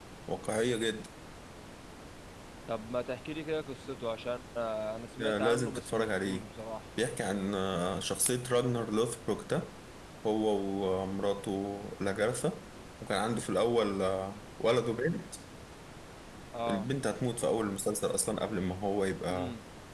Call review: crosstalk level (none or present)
present